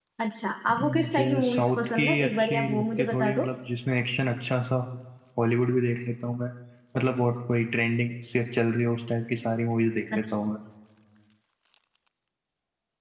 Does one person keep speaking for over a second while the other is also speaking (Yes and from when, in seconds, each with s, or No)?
Yes, from 0.8 s